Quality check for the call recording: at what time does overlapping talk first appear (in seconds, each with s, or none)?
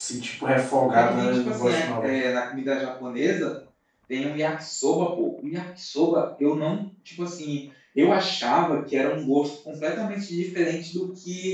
0.9 s